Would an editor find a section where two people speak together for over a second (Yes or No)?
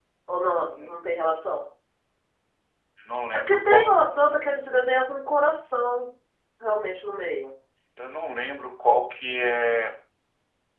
No